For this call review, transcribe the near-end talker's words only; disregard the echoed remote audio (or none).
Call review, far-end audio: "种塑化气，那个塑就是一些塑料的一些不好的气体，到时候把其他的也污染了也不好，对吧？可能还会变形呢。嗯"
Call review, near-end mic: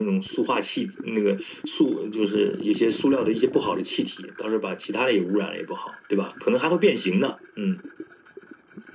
none